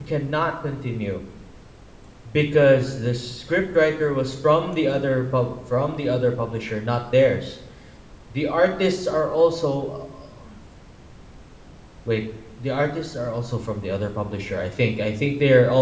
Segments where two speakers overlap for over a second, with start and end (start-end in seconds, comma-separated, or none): none